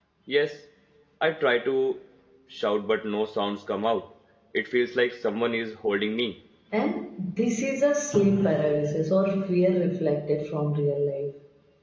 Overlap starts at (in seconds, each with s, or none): none